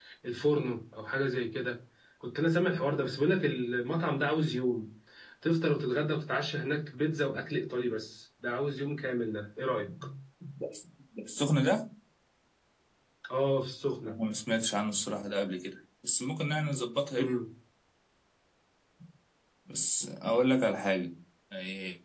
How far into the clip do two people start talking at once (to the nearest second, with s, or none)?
none